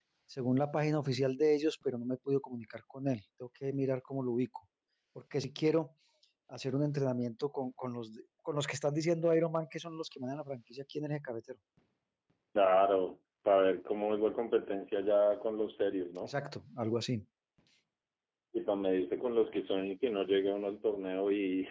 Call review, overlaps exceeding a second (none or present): none